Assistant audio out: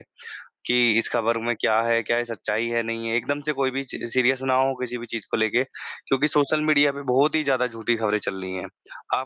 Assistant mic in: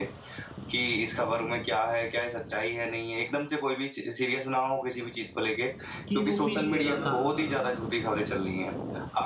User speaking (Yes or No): Yes